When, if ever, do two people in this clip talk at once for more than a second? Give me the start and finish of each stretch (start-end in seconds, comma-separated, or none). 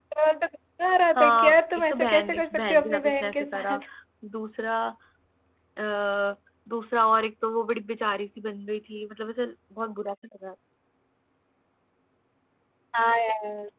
1.1-3.8